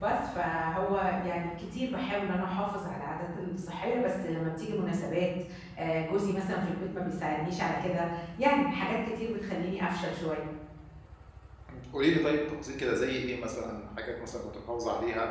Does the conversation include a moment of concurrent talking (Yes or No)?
No